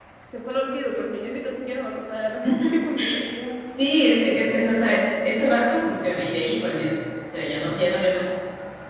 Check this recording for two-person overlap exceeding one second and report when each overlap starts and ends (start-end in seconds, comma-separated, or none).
none